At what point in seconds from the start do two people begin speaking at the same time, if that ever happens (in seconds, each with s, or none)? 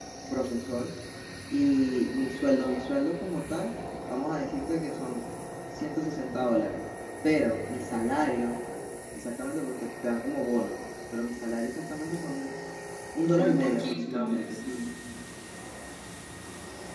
13.4 s